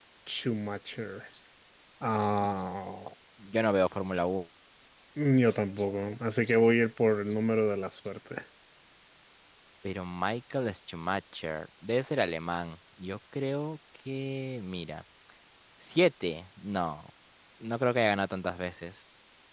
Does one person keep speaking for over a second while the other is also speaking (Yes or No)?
No